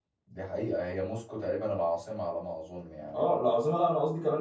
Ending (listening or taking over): taking over